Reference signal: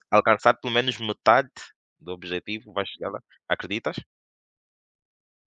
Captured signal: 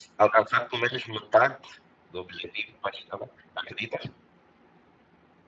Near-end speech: none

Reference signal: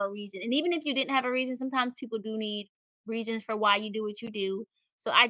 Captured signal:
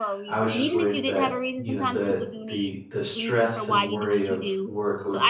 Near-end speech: present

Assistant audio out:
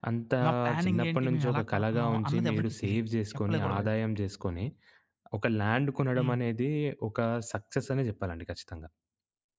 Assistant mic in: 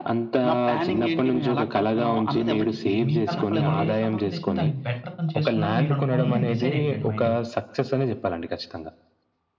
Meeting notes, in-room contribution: present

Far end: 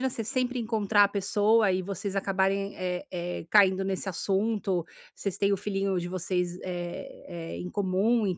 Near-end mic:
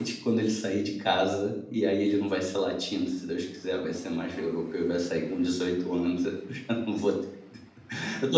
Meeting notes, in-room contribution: present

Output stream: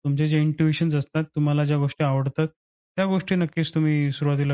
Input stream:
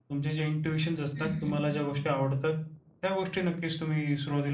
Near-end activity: present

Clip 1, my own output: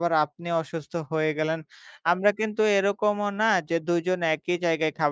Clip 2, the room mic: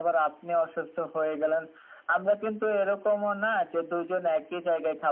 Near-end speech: none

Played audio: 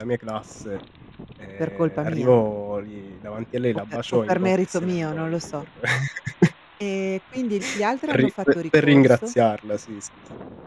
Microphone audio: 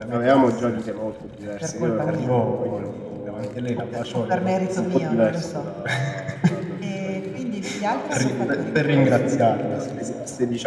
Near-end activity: present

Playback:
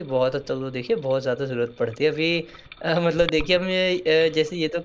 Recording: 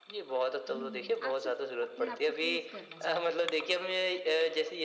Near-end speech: present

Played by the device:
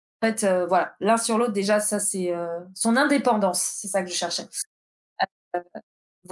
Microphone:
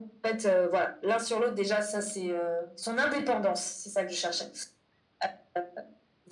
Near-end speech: none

